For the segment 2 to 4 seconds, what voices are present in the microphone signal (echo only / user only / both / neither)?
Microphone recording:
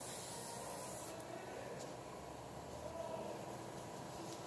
neither